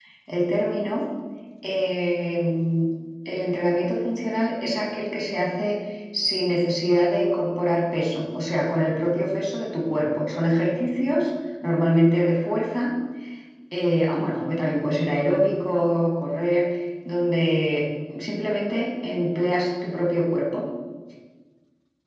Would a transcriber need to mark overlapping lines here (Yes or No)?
No